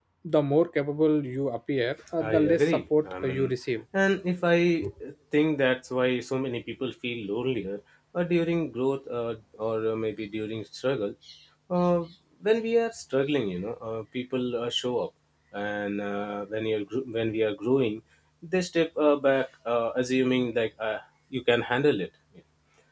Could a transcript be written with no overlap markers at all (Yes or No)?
No